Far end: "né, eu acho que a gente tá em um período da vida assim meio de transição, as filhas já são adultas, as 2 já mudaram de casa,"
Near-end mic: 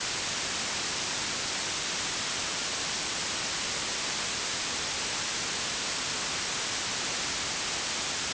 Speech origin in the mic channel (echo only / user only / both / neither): neither